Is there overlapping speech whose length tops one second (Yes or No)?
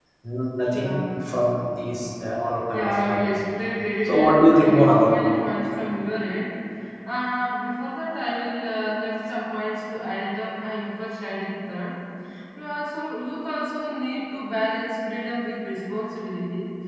Yes